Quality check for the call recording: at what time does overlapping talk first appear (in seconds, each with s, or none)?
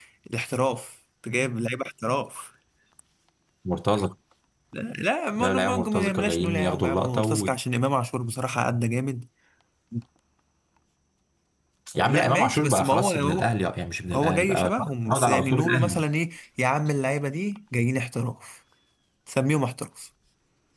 5.4 s